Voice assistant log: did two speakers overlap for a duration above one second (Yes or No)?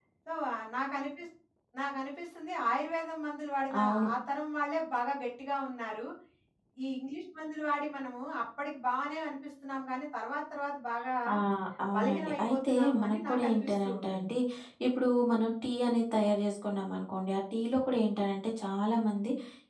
Yes